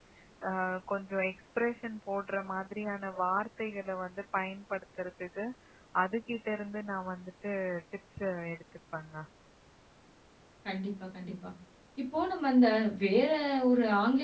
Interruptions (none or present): none